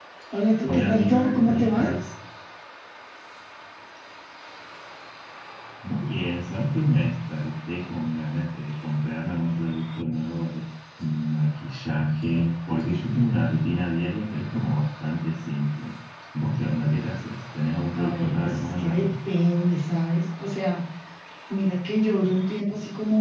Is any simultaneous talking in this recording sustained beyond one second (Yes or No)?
Yes